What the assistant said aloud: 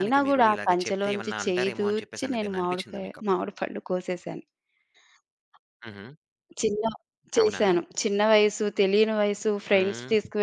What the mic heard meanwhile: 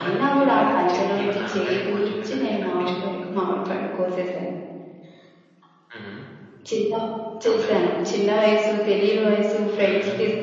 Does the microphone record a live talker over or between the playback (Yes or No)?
No